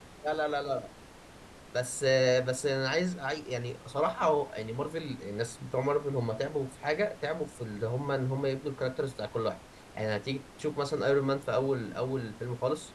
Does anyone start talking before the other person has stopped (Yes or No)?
No